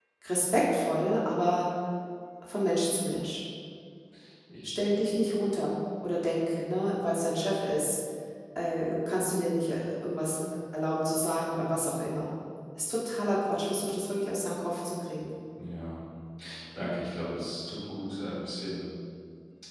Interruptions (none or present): none